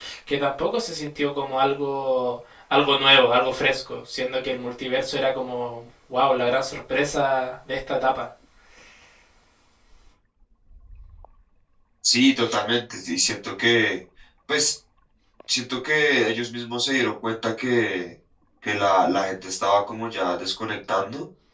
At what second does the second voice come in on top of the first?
none

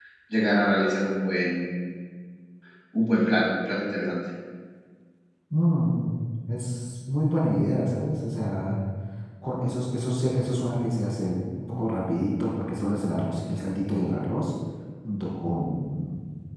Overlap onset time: none

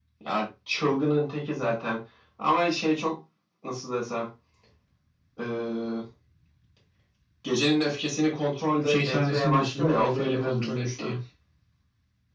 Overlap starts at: 8.8 s

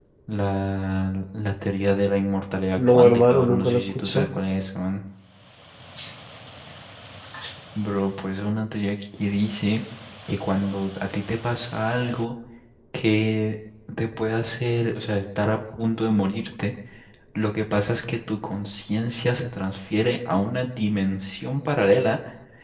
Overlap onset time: 2.8 s

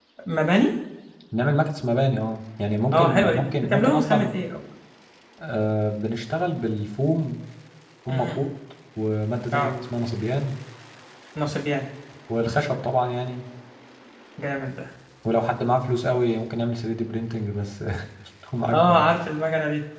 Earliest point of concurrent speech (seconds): 2.9 s

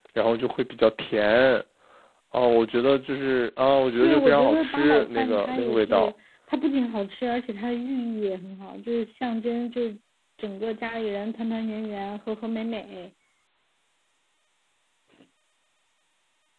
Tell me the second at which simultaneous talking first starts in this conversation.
4.0 s

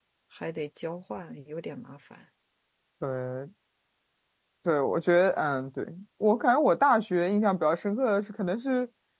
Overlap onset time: none

